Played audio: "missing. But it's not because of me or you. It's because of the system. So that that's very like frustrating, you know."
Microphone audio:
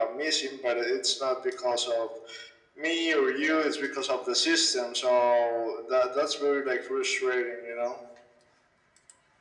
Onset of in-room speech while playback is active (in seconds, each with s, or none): none